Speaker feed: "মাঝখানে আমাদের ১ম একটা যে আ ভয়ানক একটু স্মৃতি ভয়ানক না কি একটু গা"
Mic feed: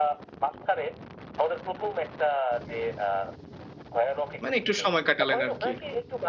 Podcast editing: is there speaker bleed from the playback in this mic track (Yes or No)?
Yes